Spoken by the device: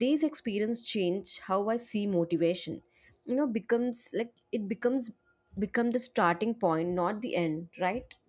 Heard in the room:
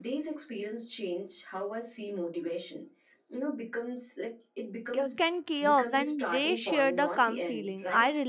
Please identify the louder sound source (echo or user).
user